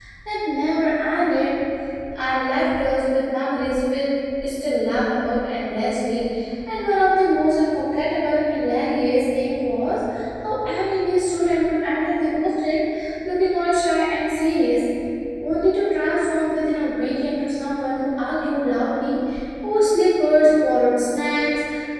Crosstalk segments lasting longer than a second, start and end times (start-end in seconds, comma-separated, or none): none